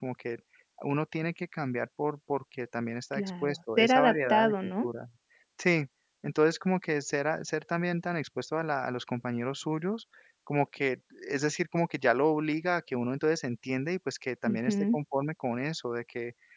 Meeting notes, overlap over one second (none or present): present